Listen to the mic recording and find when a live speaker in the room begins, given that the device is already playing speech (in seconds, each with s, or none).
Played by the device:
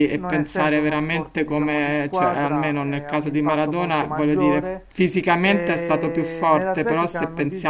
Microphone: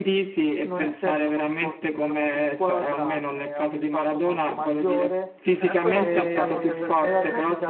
5.5 s